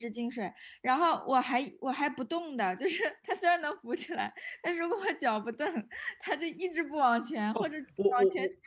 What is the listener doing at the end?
taking over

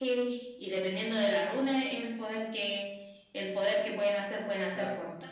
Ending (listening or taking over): taking over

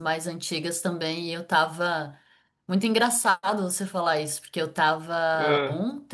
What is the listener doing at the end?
listening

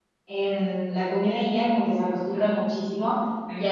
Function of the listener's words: listening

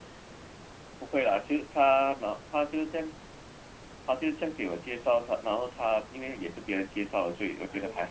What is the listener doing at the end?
taking over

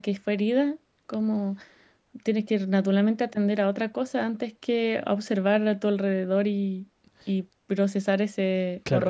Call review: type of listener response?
taking over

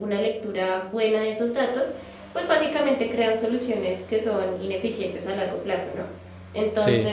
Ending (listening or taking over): listening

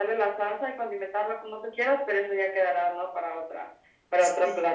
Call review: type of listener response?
taking over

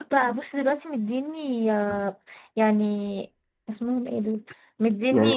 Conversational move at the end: listening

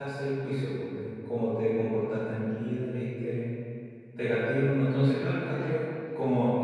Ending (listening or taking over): listening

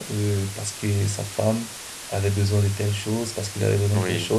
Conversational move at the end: taking over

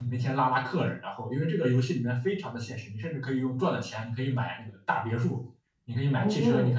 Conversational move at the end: listening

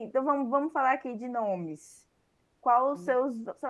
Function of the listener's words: listening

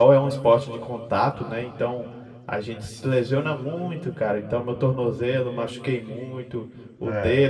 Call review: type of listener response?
listening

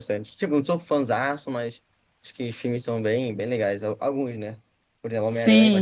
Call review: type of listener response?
listening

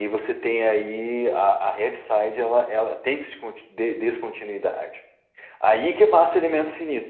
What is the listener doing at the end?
listening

